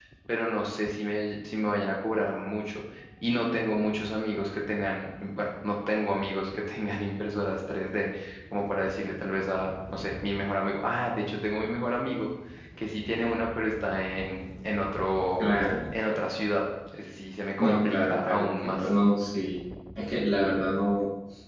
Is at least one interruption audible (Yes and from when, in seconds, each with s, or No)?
Yes, from 17.6 s